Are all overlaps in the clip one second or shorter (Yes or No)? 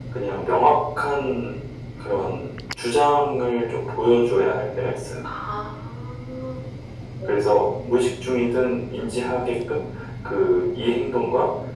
Yes